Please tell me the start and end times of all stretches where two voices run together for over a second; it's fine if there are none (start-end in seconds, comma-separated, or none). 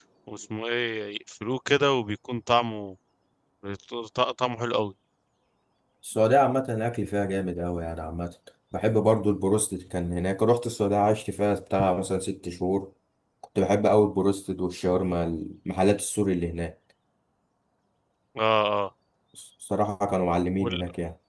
none